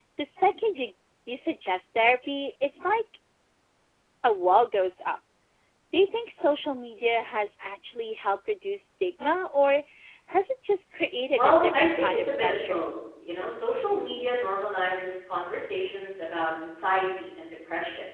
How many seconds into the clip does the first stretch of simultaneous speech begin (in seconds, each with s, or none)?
11.4 s